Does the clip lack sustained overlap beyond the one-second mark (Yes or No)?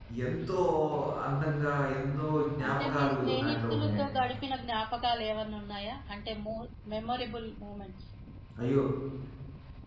No